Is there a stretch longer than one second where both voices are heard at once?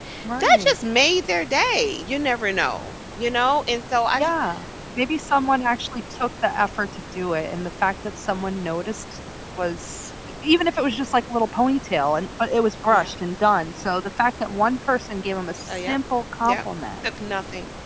No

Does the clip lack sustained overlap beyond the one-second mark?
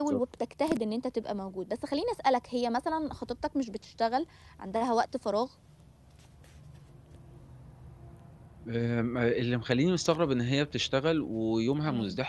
Yes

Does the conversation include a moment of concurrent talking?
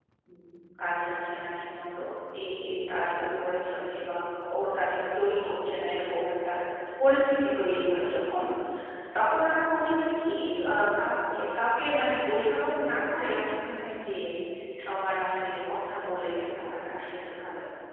No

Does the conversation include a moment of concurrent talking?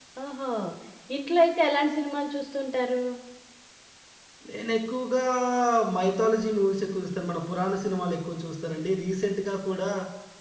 No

